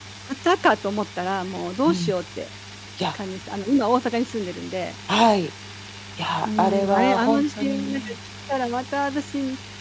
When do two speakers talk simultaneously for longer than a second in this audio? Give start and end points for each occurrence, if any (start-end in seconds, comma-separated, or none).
6.4-8.1